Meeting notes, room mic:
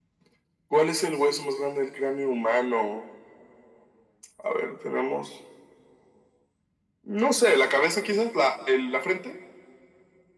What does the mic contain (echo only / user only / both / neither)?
echo only